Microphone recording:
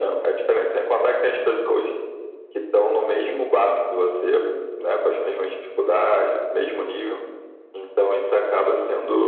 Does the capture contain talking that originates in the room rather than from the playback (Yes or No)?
No